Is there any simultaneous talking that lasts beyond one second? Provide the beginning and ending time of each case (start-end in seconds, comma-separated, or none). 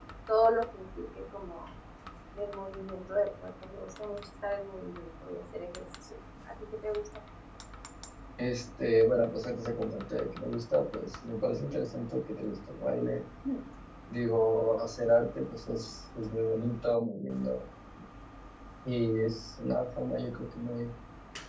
none